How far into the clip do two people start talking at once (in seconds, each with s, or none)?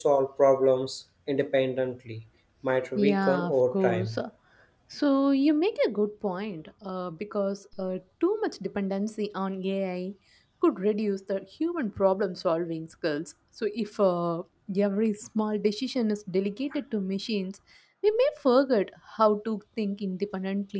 3.0 s